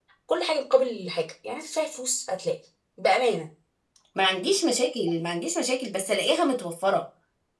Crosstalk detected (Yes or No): No